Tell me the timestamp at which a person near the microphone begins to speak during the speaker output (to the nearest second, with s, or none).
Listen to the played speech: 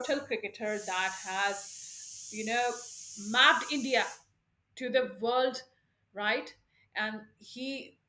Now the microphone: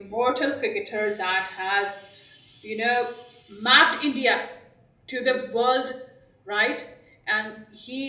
none